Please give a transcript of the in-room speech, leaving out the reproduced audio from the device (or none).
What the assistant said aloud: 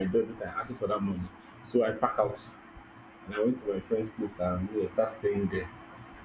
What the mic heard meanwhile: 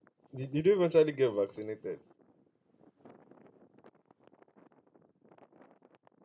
did did you eventually get vaccinated?